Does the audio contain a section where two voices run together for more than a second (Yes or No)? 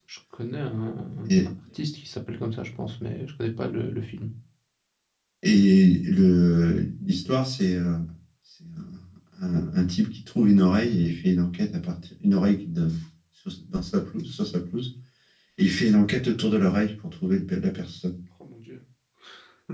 No